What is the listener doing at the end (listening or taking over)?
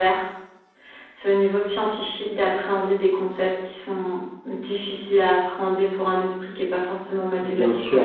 taking over